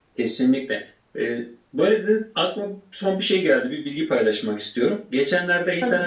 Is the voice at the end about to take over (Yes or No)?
No